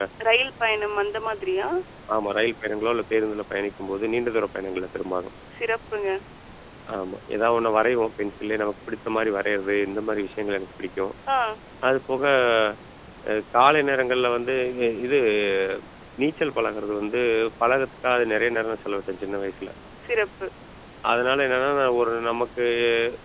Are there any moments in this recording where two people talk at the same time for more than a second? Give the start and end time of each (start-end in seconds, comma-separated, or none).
none